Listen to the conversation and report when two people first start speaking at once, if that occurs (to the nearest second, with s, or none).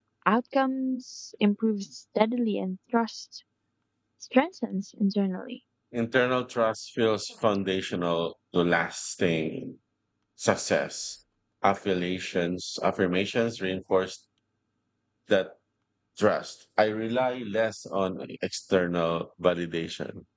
none